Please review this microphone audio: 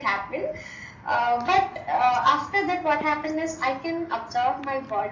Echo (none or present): present